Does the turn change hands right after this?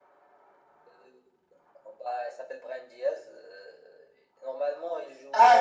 Yes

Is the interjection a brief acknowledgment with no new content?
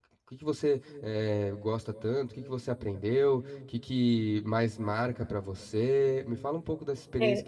Yes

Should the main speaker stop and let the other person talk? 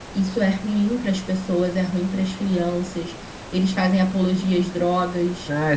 Yes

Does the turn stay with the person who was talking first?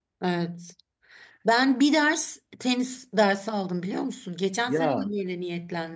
Yes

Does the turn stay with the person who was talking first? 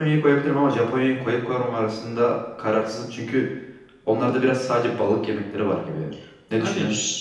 No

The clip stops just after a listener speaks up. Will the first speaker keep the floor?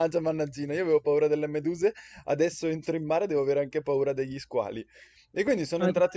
Yes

